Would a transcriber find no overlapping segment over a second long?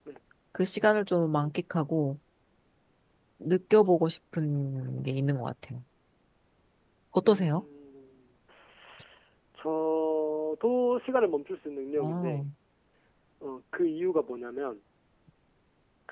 Yes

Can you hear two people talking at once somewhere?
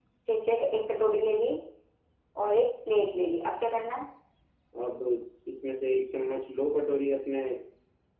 No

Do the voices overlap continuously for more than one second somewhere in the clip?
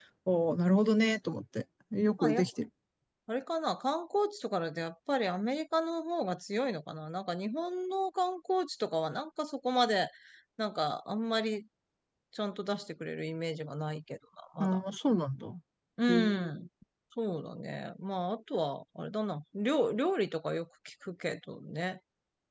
No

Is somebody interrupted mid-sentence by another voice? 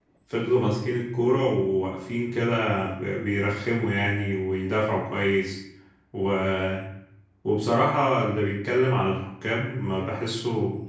No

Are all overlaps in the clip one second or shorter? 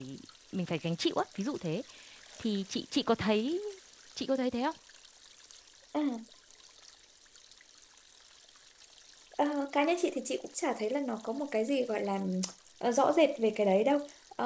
Yes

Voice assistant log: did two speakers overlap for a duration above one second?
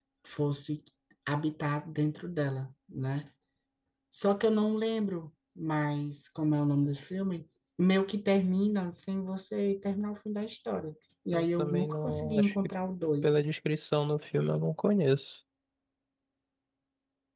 Yes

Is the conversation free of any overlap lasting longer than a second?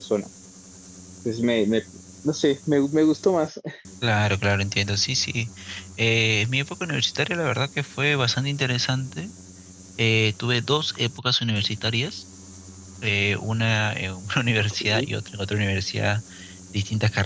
Yes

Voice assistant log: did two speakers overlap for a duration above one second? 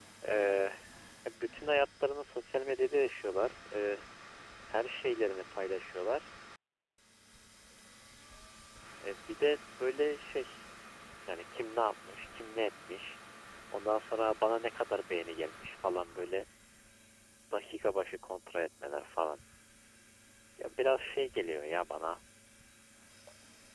No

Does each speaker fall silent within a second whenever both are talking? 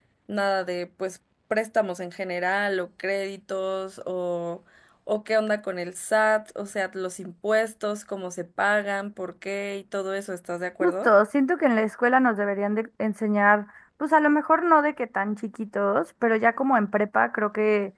Yes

